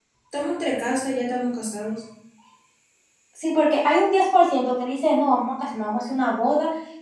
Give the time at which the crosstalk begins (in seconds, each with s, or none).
none